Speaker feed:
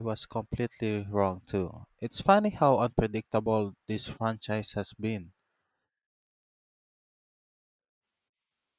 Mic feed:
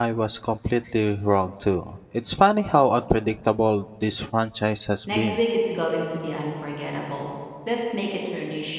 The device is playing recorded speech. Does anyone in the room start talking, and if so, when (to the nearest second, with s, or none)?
5 s